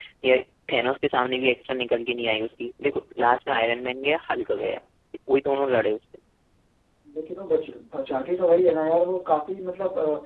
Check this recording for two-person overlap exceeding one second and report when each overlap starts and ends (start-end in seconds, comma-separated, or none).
none